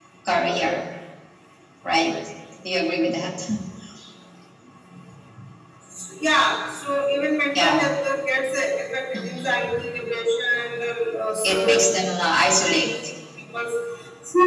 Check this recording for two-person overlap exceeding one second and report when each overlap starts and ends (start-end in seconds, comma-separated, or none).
none